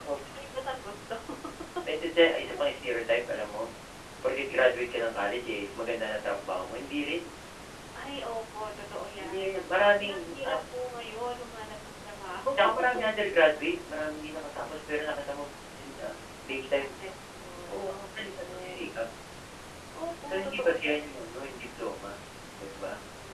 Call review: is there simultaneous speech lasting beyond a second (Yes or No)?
Yes